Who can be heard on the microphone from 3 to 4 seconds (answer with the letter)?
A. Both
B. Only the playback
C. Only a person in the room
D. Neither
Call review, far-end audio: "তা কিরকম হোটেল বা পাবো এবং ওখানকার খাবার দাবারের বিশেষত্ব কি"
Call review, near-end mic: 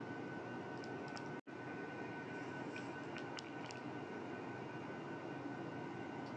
D